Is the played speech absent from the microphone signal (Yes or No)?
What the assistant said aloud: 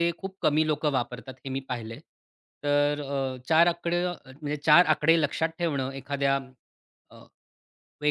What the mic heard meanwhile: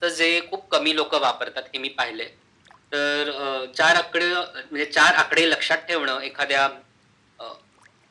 No